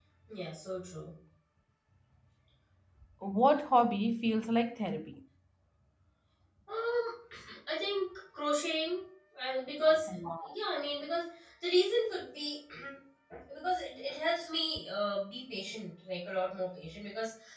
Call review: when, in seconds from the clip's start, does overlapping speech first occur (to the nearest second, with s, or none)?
none